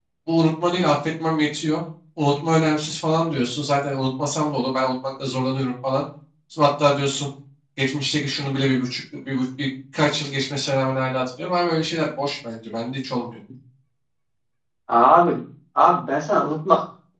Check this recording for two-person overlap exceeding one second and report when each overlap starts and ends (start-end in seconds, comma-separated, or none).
none